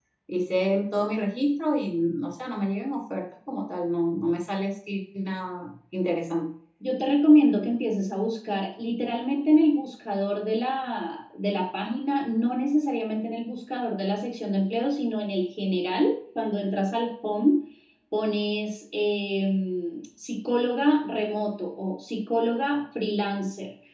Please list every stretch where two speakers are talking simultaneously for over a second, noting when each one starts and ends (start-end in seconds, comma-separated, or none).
none